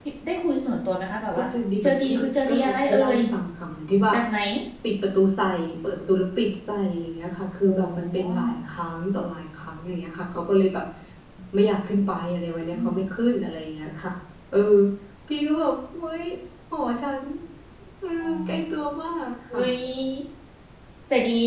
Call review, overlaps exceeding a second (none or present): present